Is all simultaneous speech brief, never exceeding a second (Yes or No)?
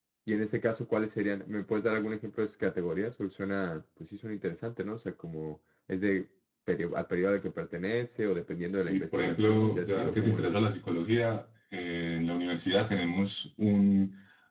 No